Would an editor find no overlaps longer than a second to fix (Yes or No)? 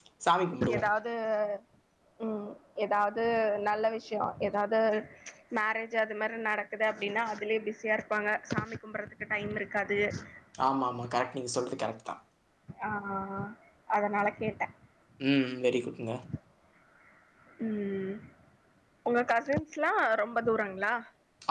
Yes